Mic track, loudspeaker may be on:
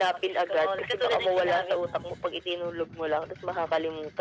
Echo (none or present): present